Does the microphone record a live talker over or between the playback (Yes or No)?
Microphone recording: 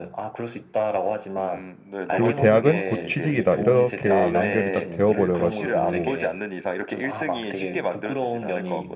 Yes